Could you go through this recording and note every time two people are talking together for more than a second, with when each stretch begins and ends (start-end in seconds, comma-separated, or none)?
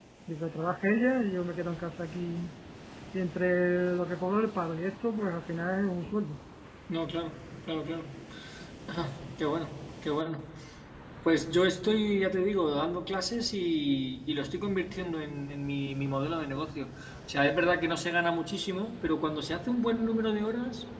none